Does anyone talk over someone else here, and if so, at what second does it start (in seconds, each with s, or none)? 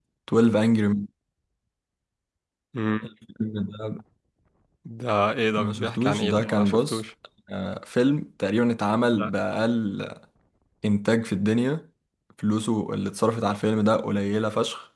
5.6 s